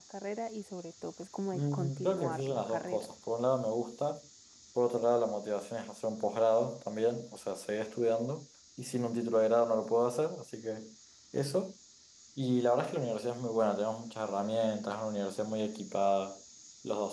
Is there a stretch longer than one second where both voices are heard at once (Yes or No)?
Yes